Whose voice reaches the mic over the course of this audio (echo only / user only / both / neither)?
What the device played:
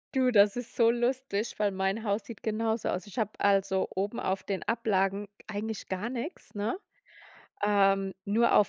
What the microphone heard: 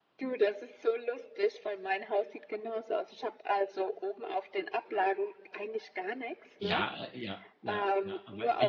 both